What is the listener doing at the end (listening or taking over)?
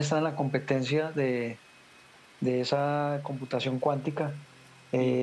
listening